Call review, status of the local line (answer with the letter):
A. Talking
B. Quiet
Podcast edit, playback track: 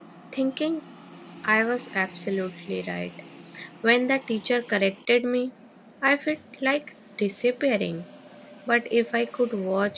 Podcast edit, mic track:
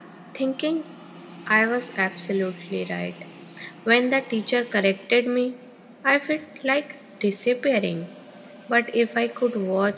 B